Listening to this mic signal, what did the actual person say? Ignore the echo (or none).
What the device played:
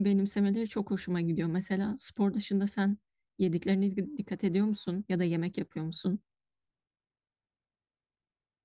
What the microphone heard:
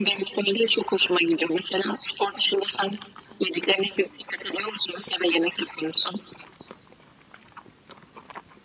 none